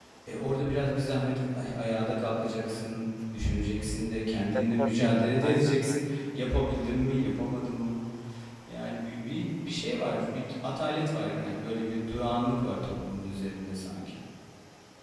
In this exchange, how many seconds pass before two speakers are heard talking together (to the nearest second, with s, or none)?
5 s